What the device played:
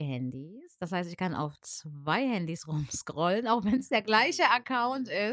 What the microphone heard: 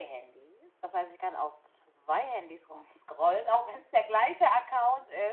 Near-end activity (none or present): none